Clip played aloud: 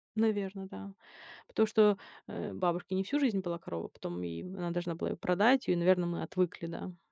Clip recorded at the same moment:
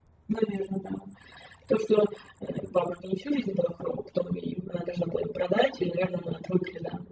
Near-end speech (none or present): none